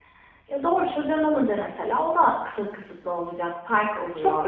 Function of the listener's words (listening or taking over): taking over